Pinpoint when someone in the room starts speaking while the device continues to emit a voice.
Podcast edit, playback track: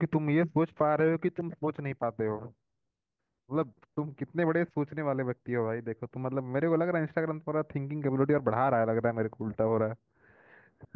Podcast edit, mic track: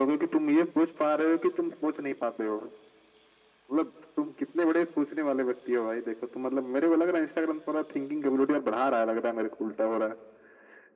none

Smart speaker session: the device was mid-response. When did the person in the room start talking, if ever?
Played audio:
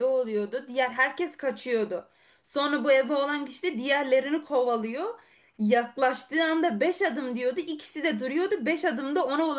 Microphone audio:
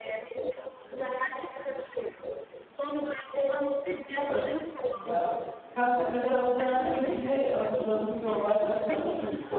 4 s

